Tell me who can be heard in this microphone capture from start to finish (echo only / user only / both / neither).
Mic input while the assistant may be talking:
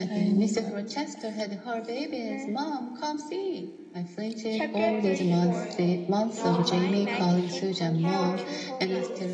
both